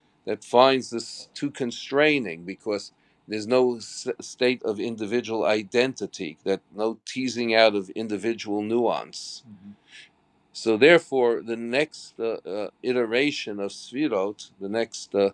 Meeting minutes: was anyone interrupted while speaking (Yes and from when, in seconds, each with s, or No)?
No